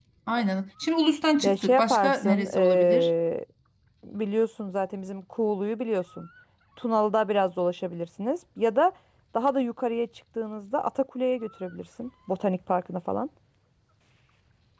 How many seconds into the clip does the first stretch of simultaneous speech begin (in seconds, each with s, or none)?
1.4 s